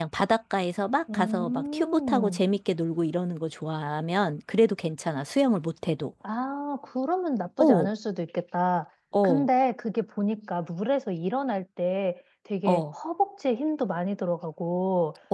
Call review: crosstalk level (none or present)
present